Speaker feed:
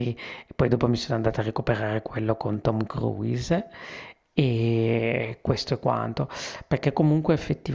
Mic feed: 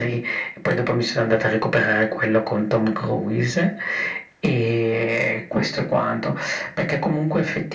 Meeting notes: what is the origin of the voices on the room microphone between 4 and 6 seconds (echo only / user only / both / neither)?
echo only